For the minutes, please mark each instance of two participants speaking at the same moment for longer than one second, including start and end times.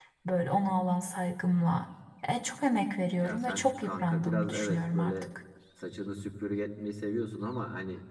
3.2-5.2

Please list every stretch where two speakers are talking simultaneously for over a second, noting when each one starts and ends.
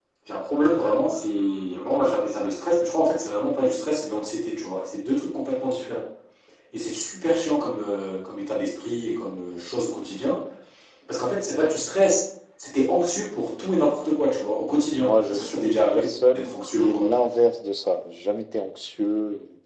15.0-17.1

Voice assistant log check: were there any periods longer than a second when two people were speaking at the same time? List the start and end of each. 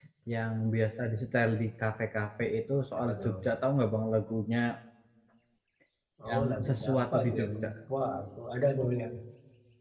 6.3-7.7

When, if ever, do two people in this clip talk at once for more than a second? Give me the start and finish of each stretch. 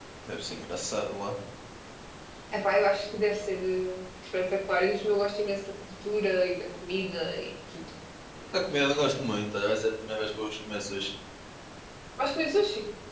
none

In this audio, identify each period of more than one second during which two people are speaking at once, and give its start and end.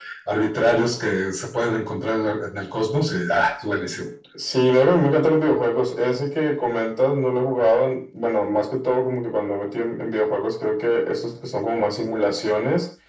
none

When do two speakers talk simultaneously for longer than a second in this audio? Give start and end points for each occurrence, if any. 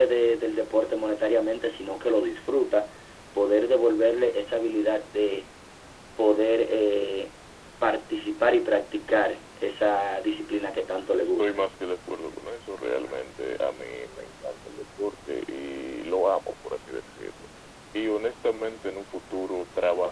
none

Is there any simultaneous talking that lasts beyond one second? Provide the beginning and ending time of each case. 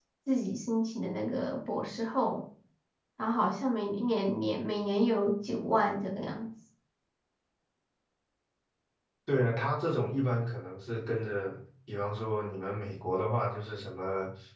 none

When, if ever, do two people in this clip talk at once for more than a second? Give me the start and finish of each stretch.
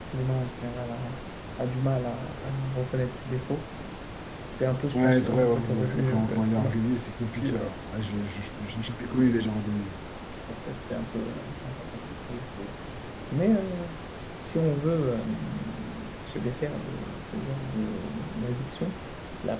4.9-6.8

